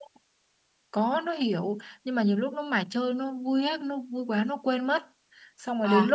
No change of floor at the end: Yes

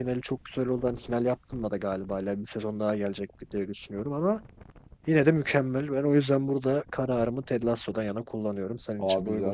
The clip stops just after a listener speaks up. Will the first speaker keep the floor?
No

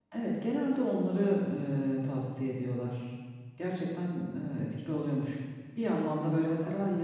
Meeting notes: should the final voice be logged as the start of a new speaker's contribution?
No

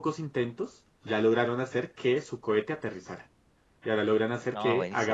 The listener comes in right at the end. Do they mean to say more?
No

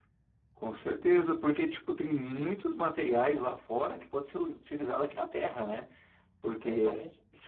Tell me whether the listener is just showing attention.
Yes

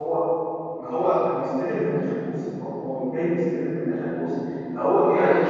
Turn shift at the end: No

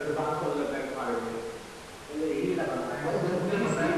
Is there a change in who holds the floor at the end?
Yes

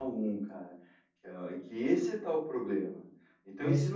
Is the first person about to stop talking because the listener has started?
No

